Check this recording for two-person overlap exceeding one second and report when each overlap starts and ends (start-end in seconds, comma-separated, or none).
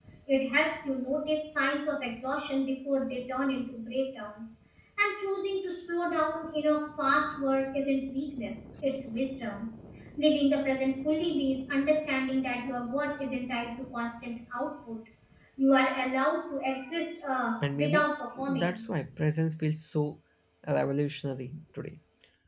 17.6-18.9